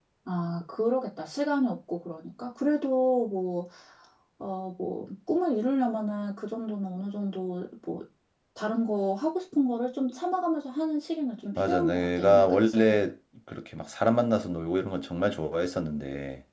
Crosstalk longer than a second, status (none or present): present